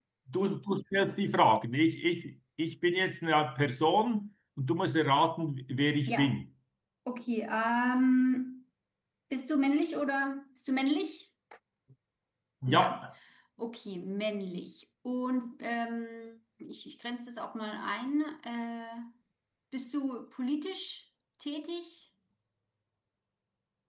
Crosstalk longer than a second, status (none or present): none